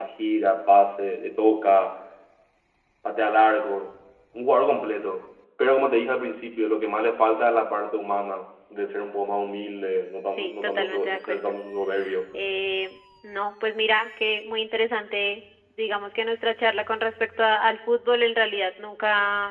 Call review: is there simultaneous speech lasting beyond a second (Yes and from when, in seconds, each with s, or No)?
Yes, from 10.2 s